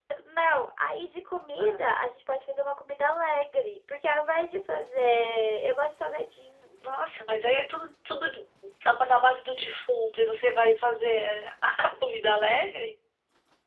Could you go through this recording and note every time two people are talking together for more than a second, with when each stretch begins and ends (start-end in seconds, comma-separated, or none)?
none